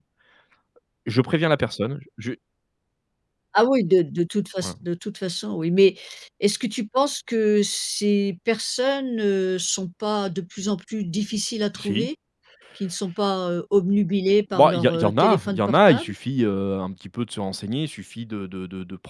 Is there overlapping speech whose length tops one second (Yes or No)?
Yes